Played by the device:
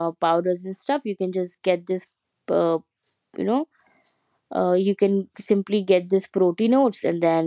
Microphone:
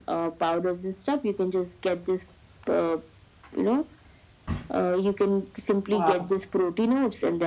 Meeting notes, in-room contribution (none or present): present